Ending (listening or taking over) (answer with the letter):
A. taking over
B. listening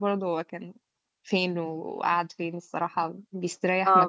A